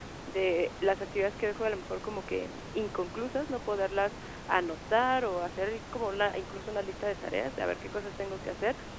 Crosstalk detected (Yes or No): No